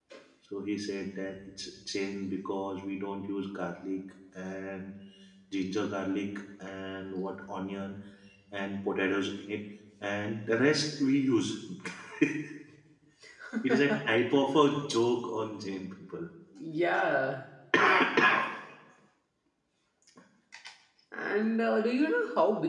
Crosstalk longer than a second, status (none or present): none